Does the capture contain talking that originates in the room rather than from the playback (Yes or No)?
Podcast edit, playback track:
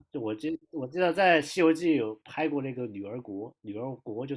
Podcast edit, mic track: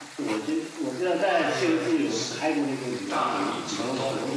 Yes